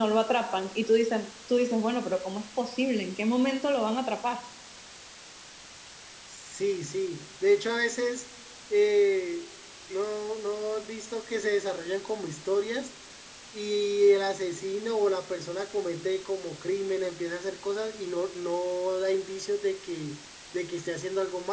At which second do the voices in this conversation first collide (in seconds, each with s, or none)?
none